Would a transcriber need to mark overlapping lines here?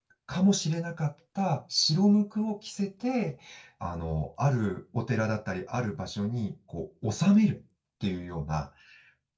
No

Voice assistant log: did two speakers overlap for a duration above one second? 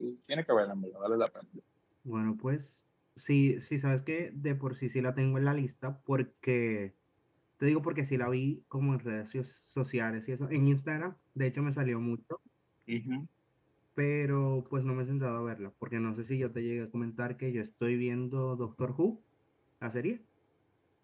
No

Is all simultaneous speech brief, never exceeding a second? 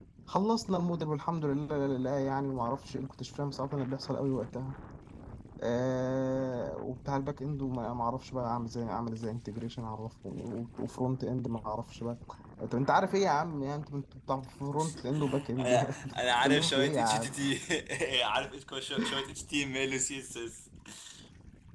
No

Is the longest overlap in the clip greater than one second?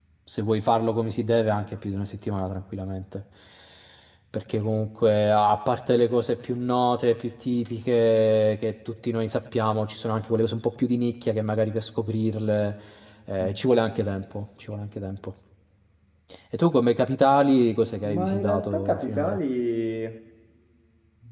Yes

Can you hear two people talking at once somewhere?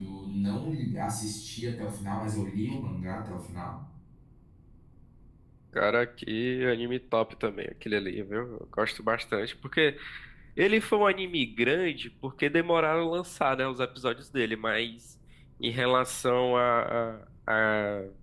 No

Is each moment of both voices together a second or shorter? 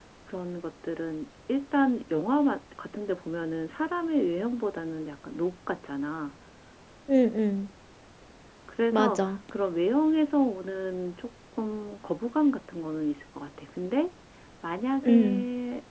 Yes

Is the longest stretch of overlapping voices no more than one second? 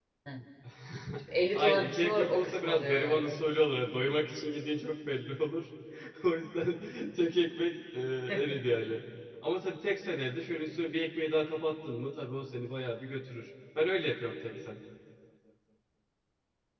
No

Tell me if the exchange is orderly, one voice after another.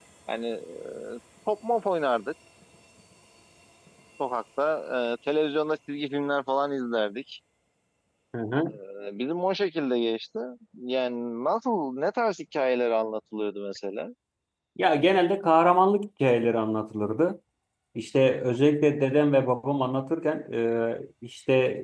Yes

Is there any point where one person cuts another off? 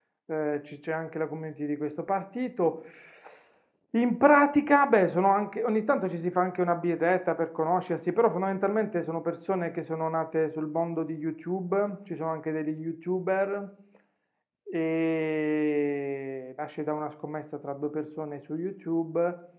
No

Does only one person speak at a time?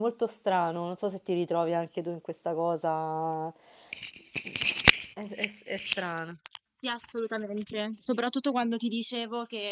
Yes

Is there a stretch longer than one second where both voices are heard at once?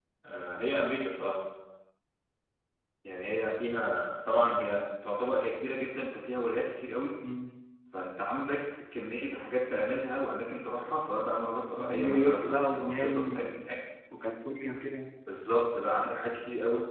Yes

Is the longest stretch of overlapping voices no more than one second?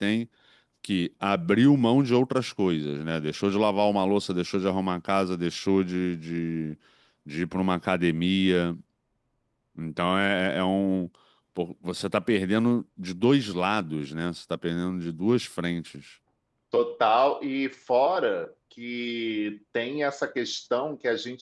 Yes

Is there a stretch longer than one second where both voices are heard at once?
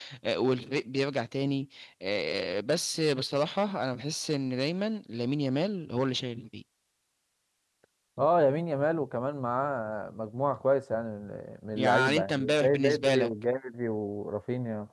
Yes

